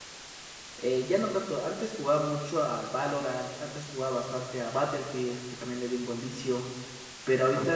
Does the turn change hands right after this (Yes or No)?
No